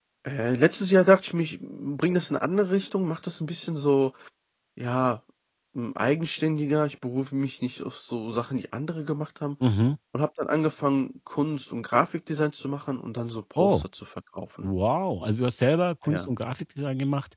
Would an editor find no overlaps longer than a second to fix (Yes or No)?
Yes